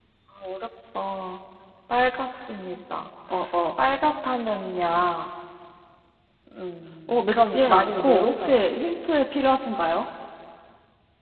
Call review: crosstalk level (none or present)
present